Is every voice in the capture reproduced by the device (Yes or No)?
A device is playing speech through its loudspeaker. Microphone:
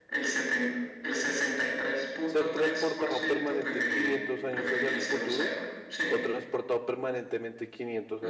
No